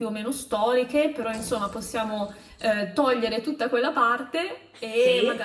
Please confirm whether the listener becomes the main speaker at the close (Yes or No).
No